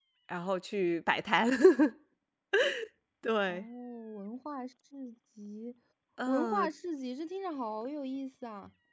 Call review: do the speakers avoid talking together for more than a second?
Yes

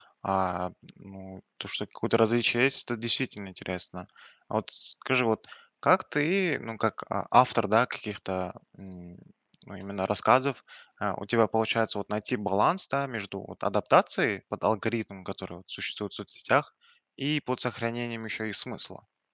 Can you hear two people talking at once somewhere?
No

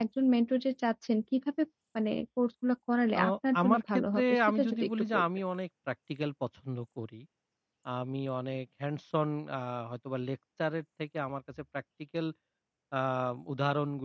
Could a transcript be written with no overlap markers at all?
No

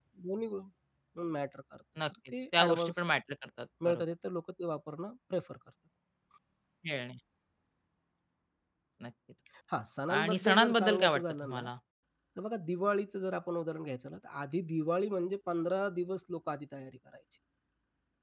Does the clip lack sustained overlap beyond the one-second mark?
No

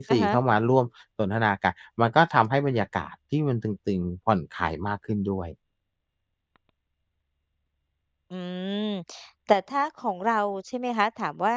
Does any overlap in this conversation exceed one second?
No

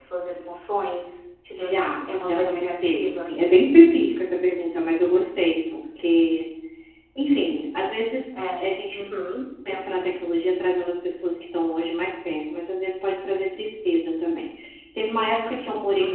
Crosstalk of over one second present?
Yes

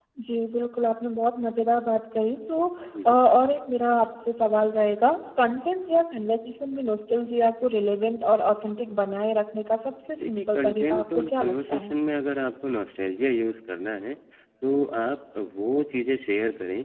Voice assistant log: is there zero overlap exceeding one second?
No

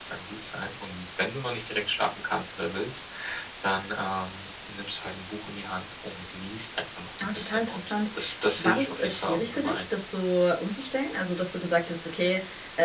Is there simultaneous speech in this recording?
Yes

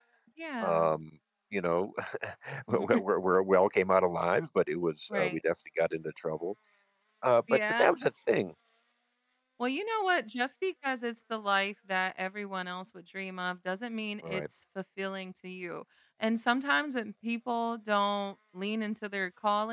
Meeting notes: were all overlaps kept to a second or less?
Yes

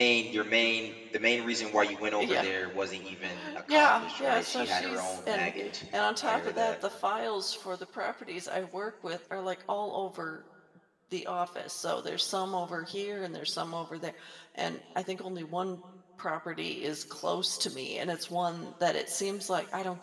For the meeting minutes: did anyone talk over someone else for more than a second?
Yes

